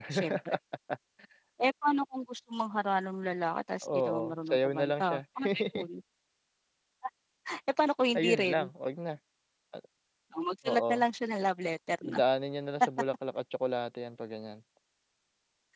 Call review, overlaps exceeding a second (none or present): present